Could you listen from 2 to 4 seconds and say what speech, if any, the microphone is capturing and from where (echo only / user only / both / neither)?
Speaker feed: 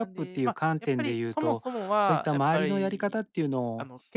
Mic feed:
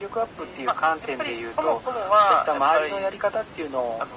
echo only